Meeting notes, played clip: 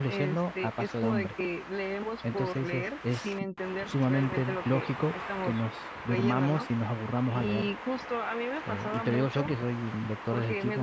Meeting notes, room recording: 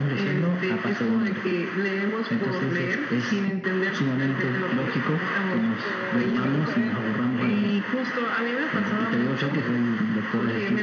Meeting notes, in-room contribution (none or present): present